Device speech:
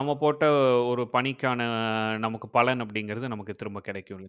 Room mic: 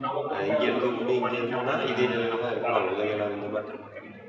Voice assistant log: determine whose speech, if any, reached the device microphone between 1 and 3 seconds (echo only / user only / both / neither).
both